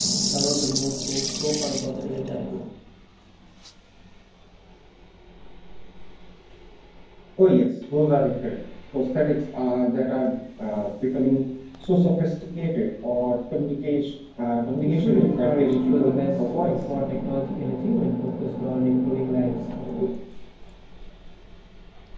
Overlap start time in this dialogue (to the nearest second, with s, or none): 15 s